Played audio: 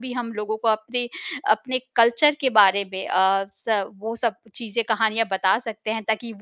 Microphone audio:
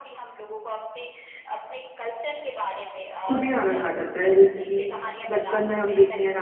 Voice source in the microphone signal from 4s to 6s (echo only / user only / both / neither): both